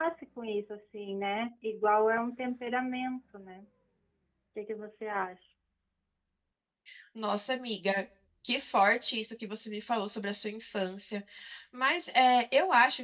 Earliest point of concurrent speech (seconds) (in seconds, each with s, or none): none